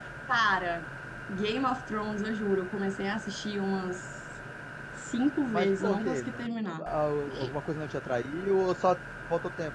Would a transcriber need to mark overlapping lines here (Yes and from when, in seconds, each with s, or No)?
Yes, from 5.5 s